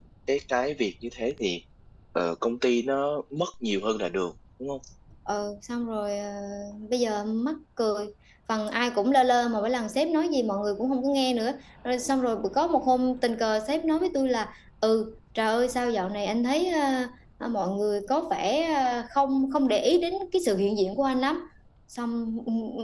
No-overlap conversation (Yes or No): Yes